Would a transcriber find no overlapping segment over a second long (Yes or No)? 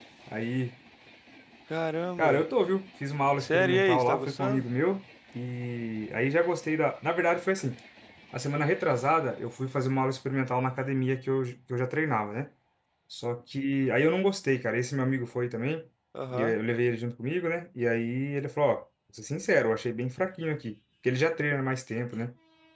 No